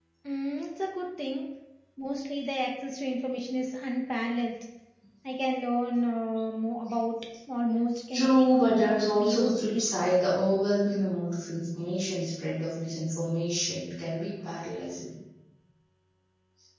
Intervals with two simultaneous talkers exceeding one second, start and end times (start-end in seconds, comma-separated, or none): 8.1-10.1